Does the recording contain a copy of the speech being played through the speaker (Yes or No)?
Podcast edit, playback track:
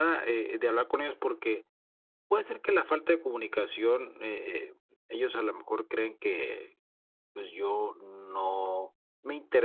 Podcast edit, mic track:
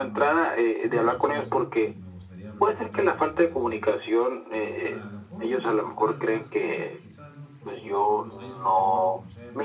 Yes